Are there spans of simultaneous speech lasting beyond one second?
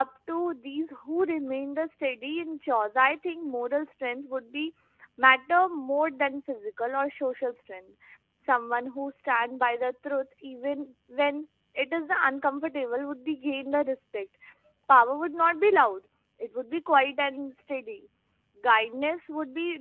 No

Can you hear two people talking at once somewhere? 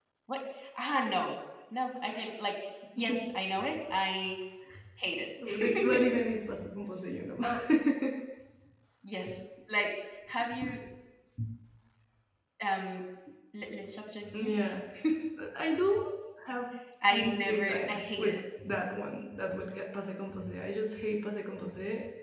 Yes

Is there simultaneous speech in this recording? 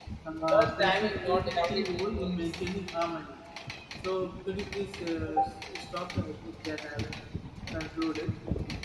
Yes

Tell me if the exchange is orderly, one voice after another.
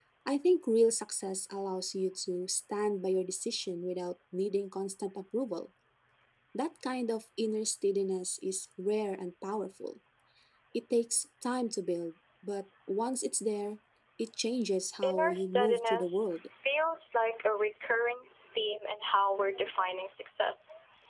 No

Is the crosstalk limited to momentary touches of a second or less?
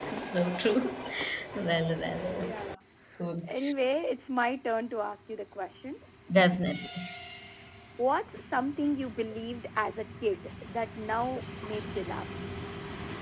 Yes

